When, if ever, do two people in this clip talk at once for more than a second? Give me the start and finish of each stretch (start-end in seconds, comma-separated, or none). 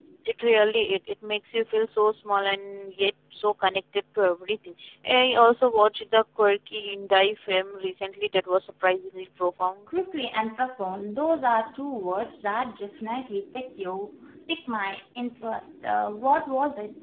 none